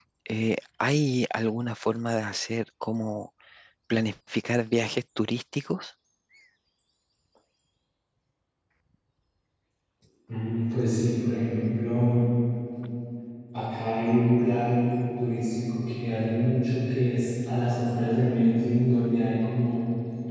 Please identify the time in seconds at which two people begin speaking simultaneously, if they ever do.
none

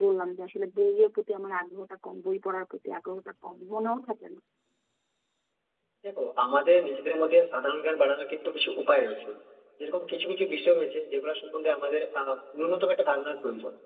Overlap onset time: none

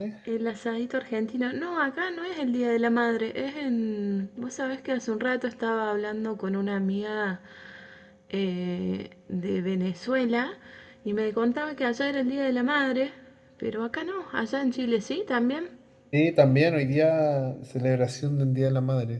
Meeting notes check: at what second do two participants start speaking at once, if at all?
none

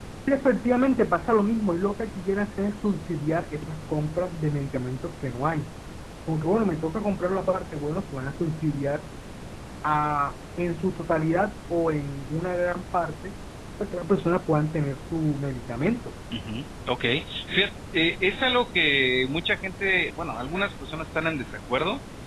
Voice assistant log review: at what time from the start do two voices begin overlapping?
none

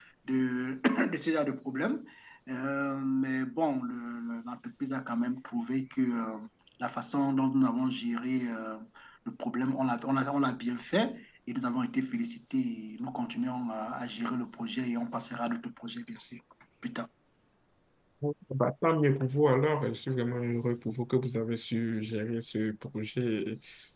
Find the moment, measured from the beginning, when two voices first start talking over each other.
none

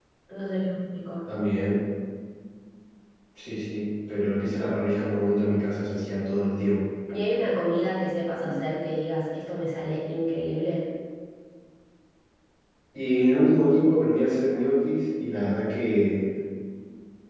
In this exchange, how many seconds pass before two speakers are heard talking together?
none

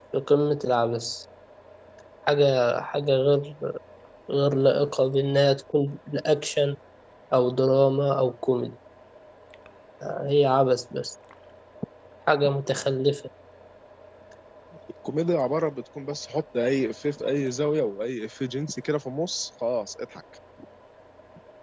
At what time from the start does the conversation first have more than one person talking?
none

